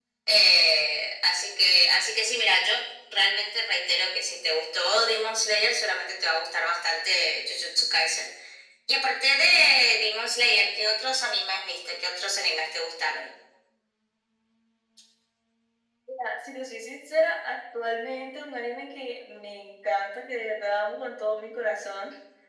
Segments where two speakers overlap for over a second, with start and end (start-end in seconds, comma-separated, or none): none